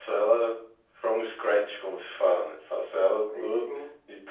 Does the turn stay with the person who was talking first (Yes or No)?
Yes